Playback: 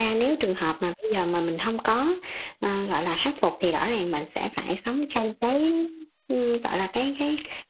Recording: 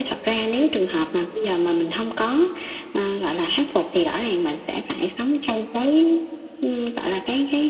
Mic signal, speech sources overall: echo only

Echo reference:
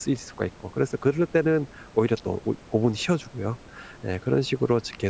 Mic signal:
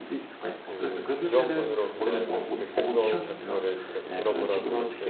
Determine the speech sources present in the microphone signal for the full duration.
both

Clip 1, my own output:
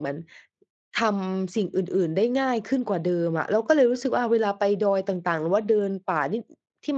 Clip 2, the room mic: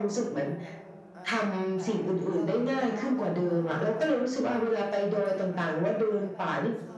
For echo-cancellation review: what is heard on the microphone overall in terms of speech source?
both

